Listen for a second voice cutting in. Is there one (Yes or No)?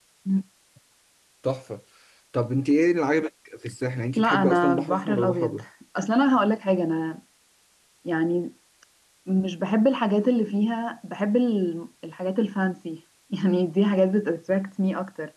Yes